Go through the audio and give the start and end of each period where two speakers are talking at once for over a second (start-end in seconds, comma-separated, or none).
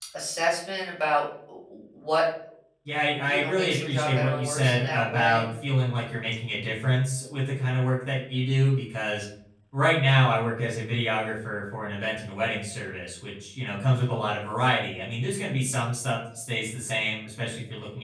3.2-5.5